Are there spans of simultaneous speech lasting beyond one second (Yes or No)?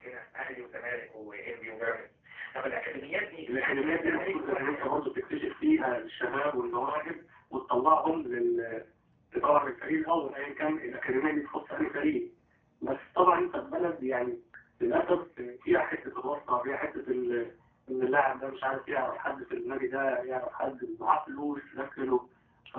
Yes